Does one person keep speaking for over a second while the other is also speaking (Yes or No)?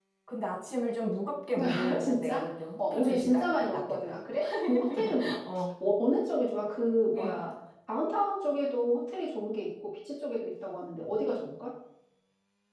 Yes